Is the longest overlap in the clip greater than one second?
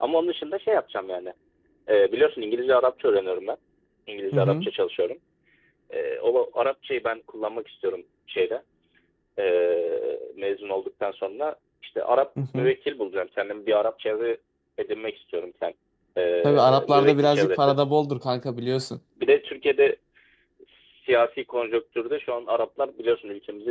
Yes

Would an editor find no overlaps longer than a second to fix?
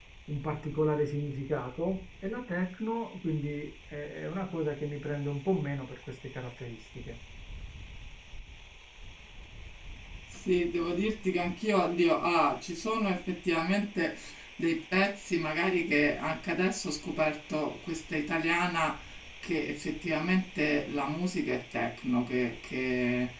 Yes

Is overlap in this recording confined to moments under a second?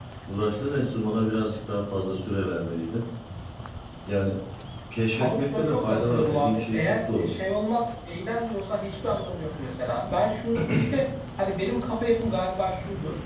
No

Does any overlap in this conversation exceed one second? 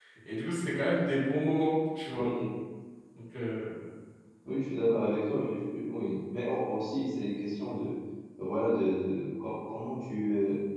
No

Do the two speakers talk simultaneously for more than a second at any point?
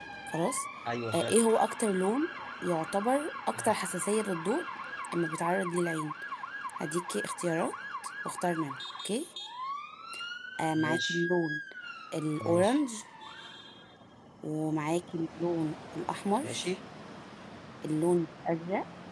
No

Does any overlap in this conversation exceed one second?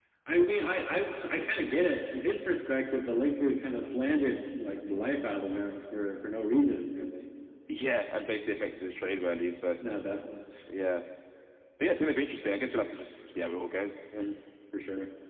No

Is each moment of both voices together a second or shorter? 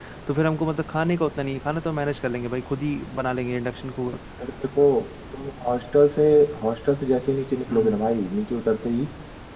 Yes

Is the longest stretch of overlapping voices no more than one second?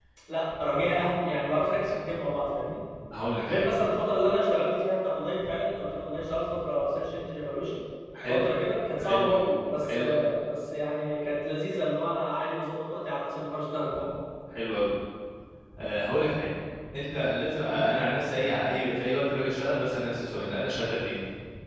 Yes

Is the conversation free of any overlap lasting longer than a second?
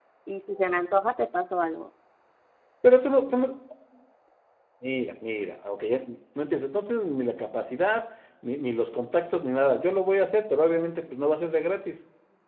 Yes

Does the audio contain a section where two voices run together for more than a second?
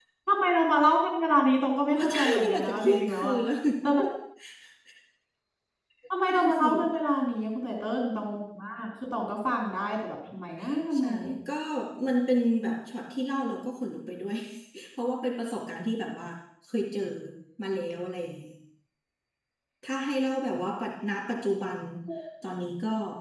Yes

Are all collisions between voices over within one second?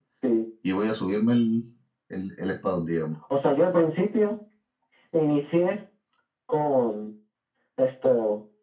Yes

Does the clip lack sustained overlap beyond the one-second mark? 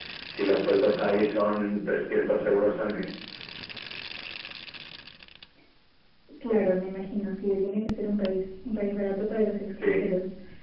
Yes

